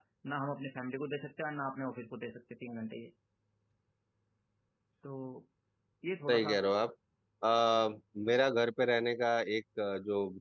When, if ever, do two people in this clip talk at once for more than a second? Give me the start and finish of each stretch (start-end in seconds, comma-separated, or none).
none